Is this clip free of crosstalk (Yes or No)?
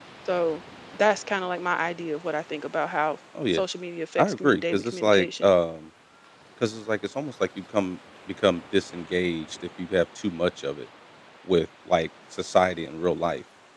No